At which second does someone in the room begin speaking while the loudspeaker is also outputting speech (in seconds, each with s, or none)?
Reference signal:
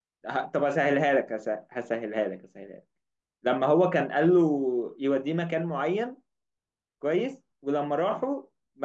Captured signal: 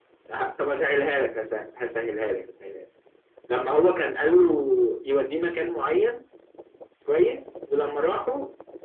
none